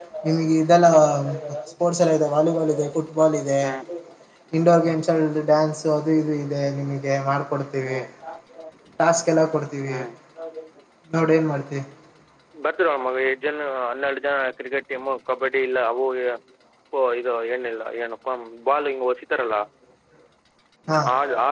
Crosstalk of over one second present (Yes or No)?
No